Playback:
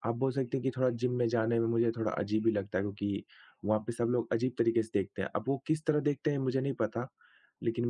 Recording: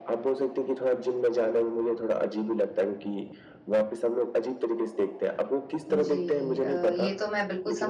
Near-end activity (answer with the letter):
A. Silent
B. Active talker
B